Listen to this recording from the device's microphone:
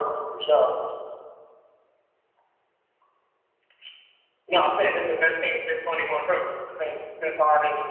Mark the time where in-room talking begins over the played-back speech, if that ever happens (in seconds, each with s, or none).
none